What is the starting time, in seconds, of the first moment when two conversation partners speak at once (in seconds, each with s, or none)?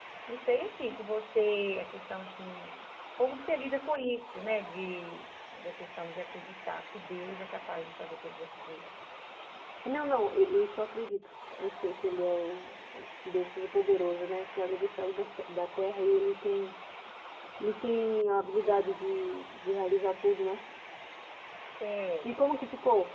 none